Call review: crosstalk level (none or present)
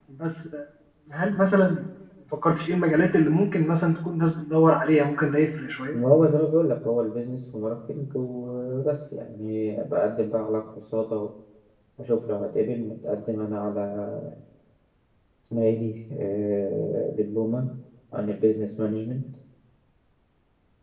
none